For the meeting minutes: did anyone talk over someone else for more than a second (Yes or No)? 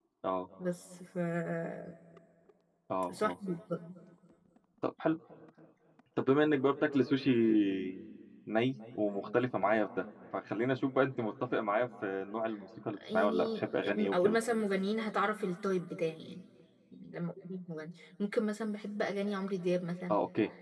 Yes